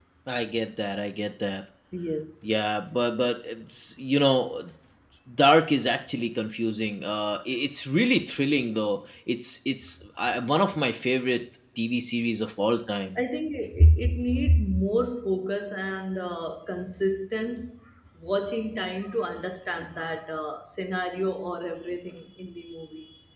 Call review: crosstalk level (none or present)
none